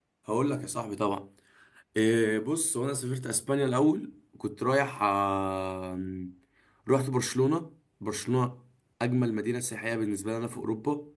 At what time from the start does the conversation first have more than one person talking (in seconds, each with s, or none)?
none